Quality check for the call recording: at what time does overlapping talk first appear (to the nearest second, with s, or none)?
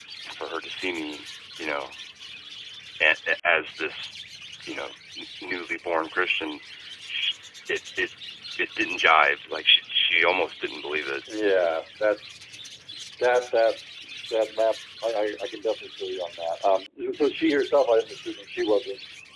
none